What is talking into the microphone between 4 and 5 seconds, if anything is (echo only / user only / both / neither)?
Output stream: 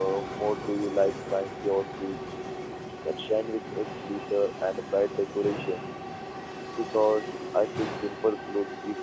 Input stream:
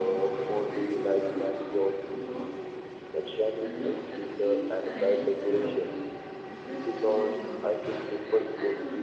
both